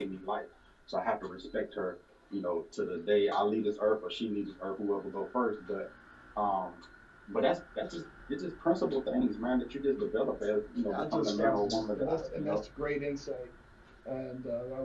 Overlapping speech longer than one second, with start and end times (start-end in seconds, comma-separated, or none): 10.9-12.6